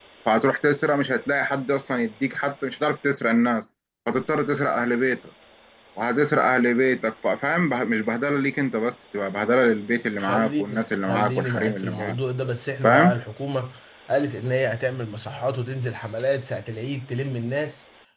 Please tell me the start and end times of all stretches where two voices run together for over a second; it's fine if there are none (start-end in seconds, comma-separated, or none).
10.2-12.2